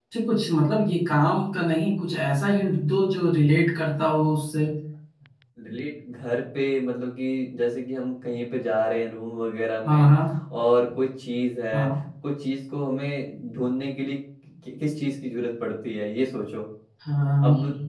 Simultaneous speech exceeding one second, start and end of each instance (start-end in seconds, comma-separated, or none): none